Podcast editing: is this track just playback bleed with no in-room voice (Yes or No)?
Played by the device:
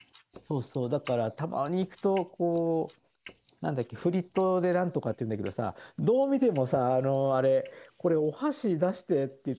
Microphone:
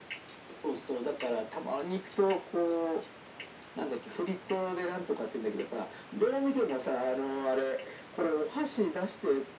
Yes